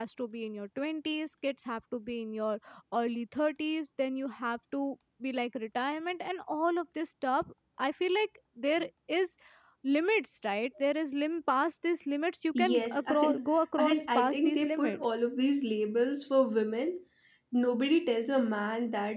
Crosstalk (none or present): present